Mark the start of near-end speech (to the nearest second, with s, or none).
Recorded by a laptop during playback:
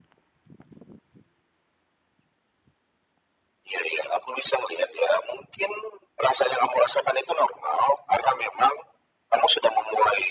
none